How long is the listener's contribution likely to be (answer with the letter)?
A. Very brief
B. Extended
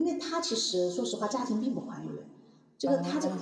A